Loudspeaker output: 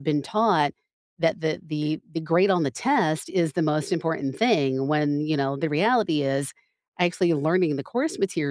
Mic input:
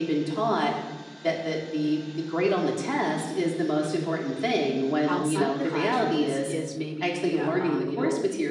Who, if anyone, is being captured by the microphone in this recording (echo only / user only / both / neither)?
both